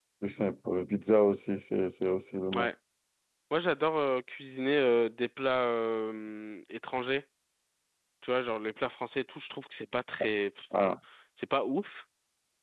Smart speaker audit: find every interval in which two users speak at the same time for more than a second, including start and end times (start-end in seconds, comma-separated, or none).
none